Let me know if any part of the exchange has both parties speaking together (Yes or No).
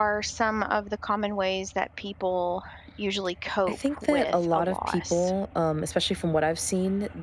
Yes